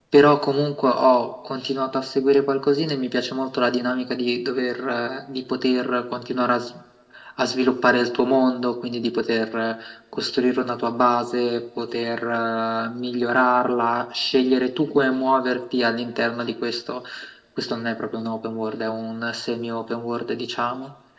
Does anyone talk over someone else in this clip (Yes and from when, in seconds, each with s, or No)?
No